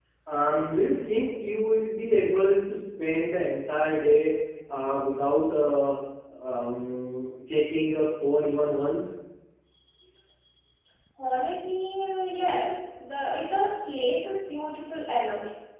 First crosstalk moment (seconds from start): none

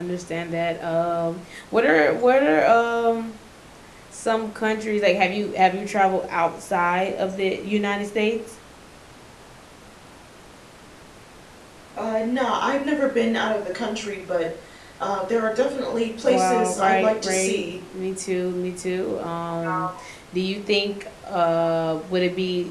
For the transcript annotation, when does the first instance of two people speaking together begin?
16.2 s

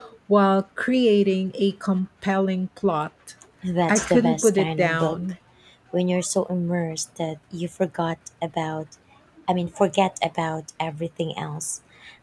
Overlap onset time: 3.9 s

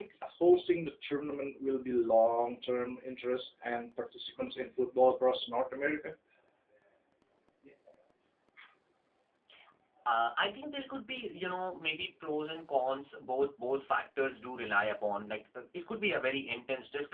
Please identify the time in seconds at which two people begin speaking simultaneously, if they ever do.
none

